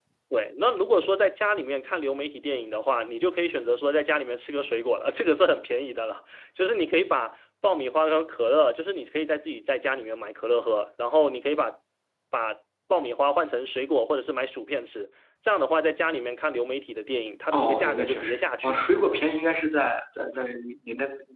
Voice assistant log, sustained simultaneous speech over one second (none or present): present